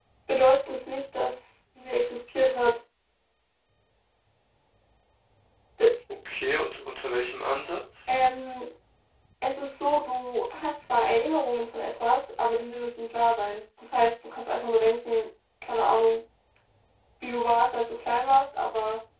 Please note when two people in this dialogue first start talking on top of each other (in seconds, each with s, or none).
none